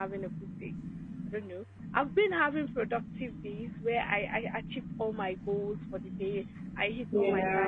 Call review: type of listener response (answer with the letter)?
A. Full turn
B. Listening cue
B